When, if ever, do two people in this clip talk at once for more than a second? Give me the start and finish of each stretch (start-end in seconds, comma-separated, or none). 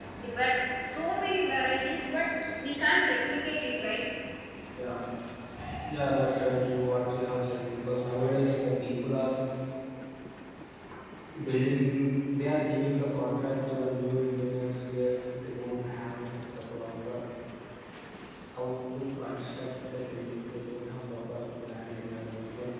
none